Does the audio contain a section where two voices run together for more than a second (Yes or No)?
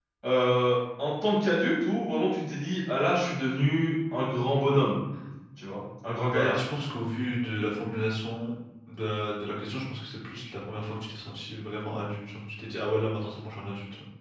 No